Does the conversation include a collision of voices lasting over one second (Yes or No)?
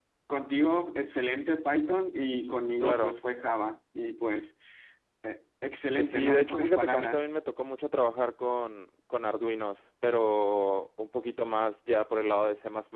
Yes